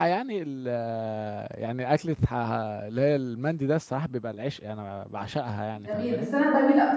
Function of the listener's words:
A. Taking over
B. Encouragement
A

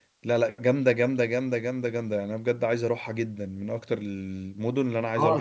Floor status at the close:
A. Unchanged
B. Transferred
B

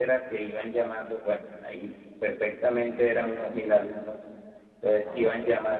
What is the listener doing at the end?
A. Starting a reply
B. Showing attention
B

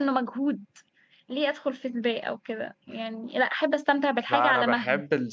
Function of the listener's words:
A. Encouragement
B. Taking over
B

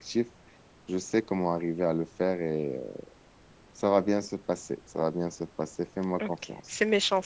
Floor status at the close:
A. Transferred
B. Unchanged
A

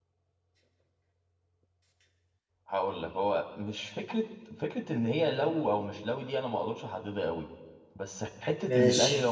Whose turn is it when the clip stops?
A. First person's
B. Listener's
A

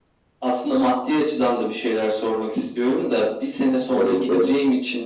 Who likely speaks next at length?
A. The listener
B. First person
B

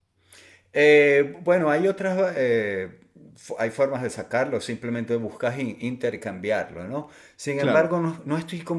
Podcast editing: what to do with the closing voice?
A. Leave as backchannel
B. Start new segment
A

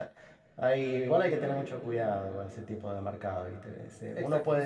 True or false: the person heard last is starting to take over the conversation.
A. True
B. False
A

